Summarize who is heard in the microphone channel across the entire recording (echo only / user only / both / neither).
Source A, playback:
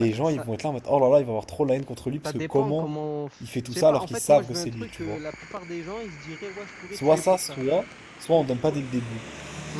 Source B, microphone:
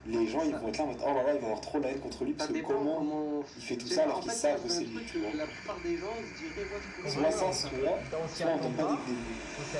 both